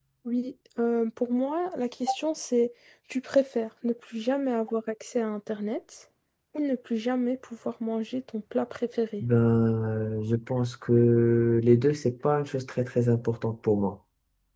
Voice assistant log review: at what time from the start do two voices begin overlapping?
none

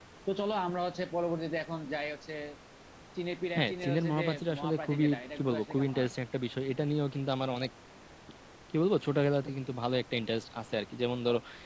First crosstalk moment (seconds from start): 4 s

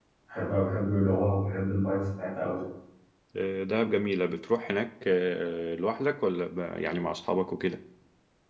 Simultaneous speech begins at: none

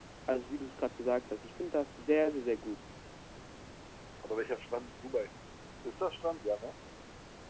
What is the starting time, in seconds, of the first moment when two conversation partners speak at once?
none

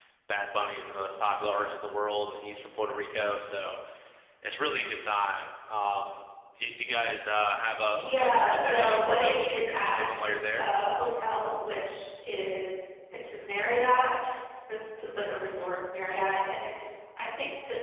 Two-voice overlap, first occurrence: 8 s

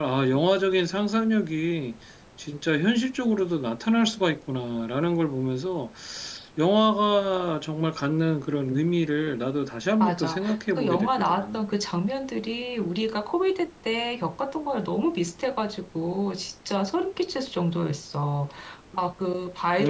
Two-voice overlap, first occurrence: 10 s

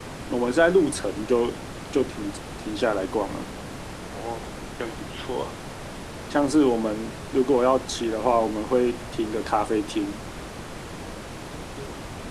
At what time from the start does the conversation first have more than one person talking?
none

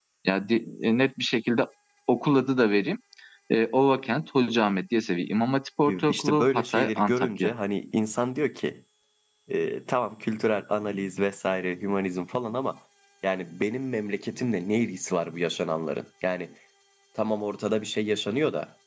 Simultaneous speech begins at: 6 s

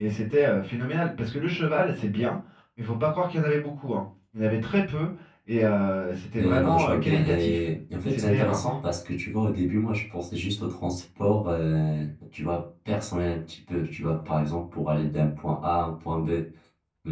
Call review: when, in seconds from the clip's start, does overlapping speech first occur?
6 s

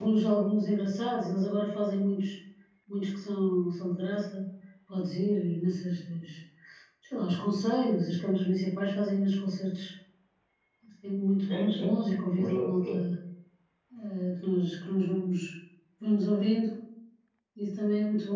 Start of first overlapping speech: 11 s

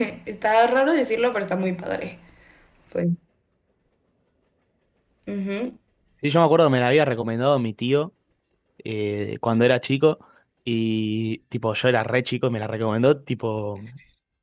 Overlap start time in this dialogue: none

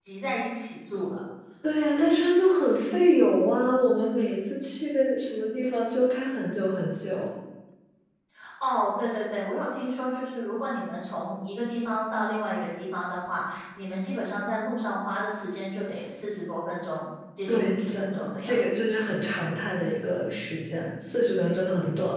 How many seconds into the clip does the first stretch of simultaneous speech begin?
17 s

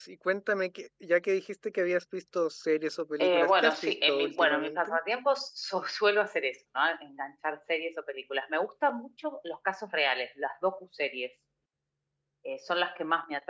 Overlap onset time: 3 s

